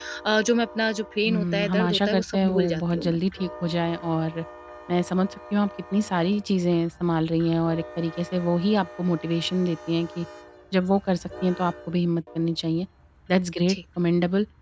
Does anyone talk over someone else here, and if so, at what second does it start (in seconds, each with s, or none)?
1.2 s